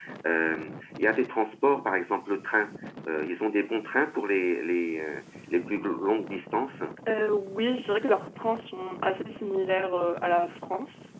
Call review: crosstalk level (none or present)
none